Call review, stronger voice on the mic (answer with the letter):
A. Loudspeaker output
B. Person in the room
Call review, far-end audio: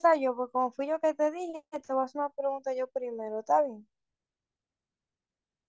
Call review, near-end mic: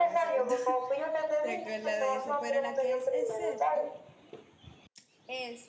A